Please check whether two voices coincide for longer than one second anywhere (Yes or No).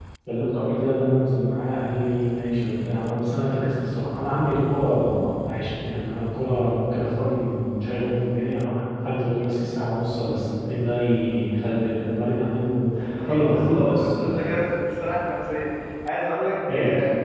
Yes